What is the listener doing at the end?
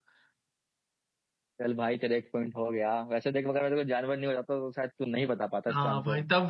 taking over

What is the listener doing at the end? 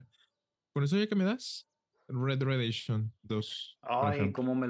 taking over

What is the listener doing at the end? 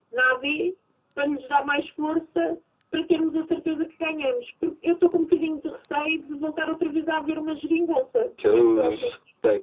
taking over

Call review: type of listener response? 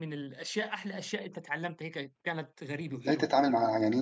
taking over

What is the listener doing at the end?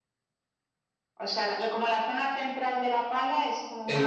taking over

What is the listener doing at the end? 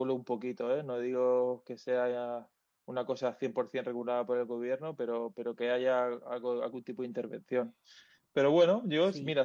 listening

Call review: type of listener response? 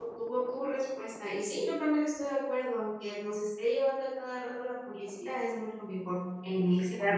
taking over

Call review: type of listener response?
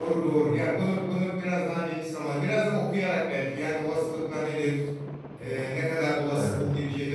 listening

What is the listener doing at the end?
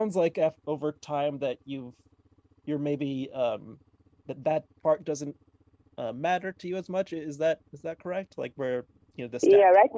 taking over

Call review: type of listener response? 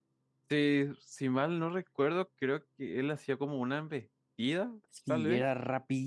taking over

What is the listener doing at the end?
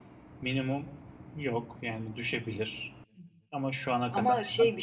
taking over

